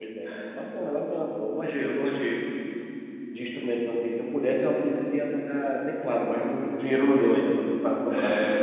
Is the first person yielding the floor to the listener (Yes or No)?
Yes